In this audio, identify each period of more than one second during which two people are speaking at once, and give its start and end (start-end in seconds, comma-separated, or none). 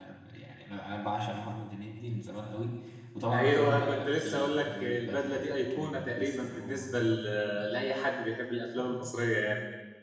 3.3-6.9